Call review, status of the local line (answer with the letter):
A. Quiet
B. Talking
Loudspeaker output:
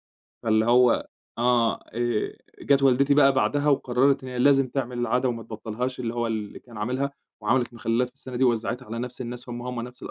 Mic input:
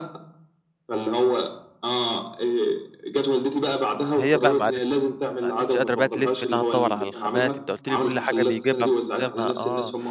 B